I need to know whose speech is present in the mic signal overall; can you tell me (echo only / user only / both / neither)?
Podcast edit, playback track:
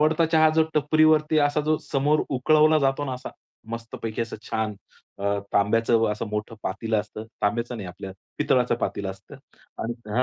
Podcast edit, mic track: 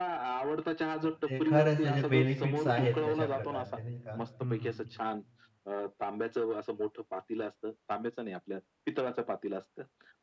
both